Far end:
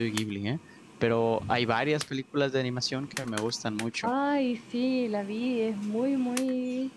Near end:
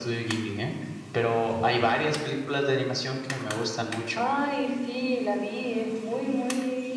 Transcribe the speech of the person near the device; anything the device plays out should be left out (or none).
none